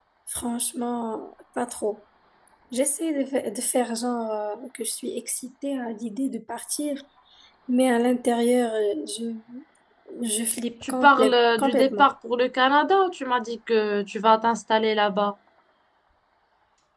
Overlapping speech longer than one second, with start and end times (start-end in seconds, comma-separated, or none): 10.8-12.1